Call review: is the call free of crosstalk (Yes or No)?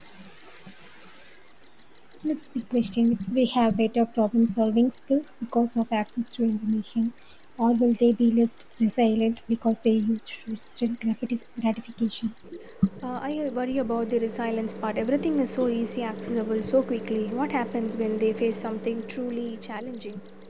Yes